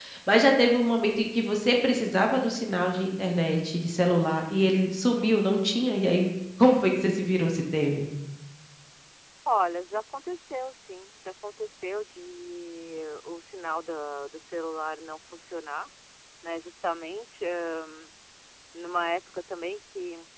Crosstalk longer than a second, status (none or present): none